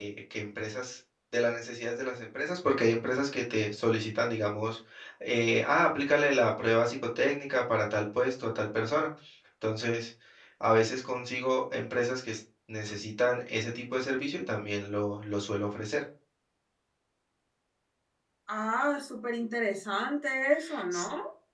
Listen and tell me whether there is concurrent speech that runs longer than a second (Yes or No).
No